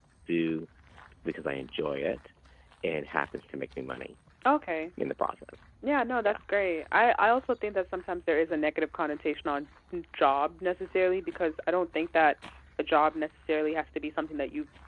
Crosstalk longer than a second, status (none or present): none